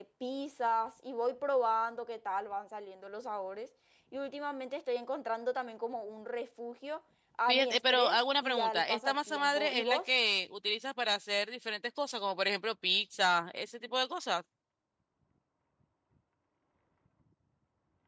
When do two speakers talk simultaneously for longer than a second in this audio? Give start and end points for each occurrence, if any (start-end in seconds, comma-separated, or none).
7.5-10.1